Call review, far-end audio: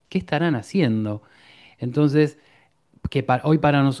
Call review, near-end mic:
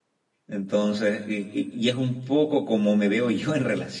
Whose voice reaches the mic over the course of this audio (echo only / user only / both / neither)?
user only